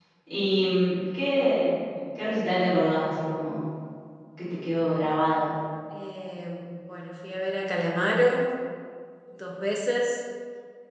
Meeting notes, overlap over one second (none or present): none